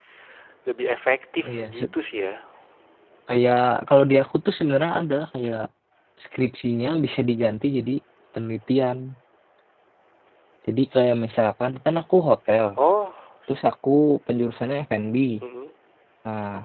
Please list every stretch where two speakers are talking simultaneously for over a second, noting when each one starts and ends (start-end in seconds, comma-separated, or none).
none